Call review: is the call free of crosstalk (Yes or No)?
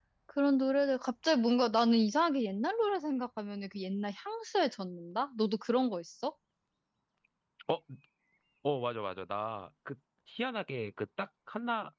Yes